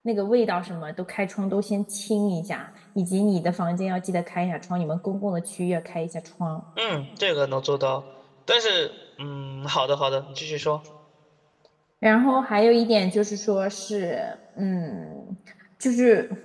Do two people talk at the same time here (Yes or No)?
No